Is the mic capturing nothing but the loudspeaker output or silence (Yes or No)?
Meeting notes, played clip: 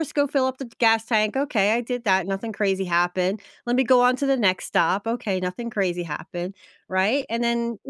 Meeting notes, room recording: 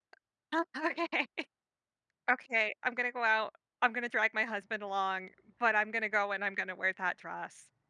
No